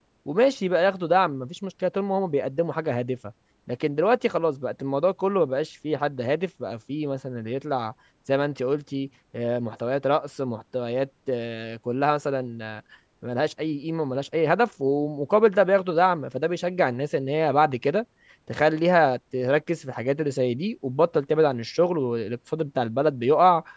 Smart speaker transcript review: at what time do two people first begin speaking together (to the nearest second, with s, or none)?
none